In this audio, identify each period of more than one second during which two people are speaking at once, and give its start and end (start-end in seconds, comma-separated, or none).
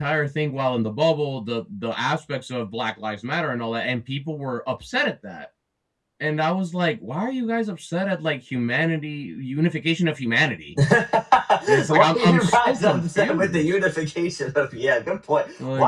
11.9-13.8